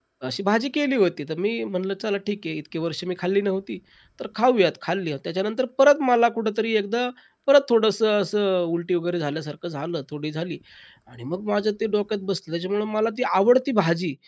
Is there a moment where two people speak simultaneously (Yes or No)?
No